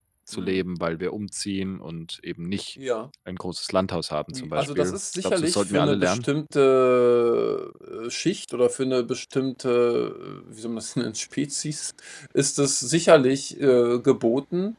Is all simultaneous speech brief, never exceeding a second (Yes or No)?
No